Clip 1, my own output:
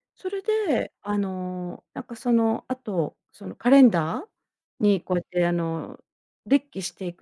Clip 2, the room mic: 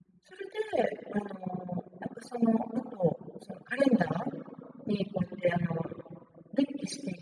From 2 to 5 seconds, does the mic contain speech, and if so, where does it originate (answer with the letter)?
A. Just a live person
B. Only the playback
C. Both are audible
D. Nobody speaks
B